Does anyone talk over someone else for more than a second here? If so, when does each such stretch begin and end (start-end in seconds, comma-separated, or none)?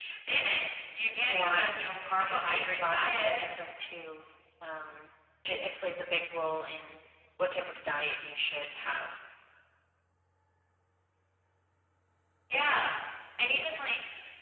1.2-3.5